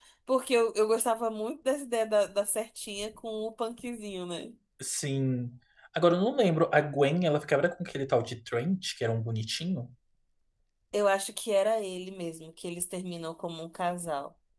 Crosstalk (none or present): none